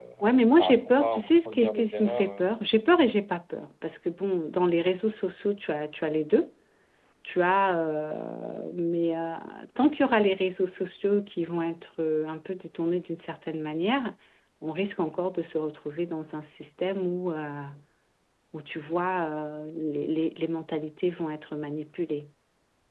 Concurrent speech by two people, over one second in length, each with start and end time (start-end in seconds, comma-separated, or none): 0.6-2.5